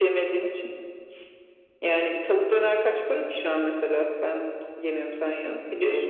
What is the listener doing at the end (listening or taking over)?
taking over